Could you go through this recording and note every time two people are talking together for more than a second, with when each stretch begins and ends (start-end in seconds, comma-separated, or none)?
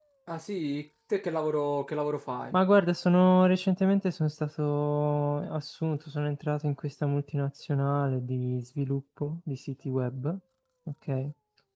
none